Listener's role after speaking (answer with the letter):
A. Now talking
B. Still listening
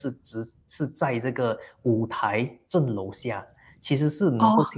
B